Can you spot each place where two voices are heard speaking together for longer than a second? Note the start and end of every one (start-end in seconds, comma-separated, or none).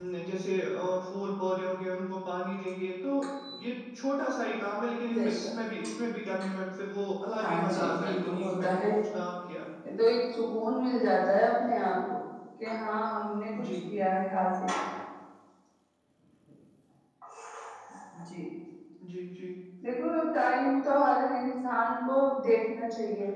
7.4-8.9